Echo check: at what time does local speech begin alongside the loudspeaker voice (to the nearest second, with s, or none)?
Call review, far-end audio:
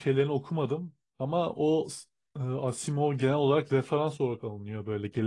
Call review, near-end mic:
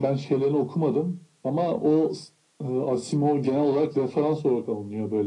none